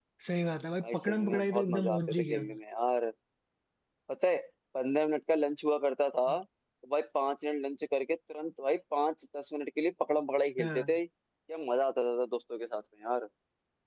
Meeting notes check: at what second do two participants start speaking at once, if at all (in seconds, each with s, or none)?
0.8 s